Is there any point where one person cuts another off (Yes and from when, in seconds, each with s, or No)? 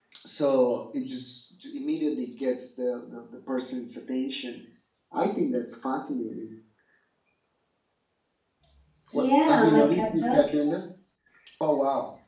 Yes, from 9.1 s